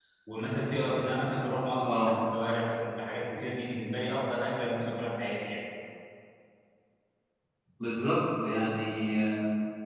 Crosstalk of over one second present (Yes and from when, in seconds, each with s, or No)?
No